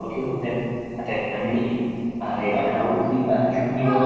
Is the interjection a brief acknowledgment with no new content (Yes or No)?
No